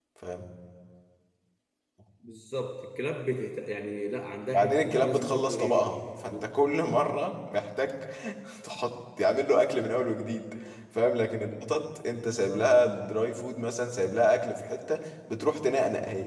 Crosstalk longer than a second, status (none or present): present